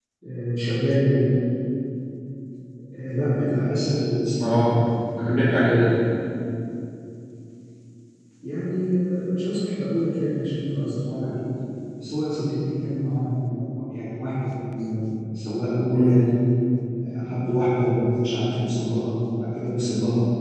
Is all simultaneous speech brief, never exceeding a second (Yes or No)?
Yes